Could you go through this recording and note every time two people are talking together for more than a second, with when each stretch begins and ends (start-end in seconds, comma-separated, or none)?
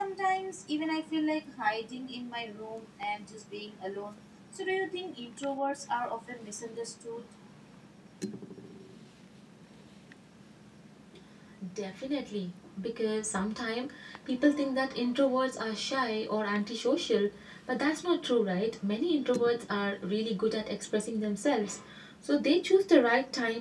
none